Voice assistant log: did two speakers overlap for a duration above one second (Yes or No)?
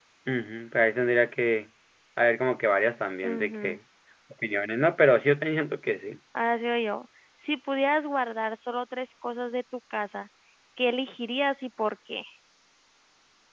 No